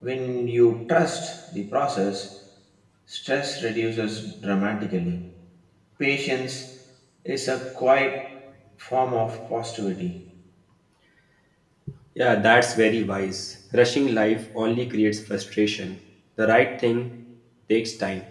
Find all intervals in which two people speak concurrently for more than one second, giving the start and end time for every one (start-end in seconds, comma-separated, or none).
none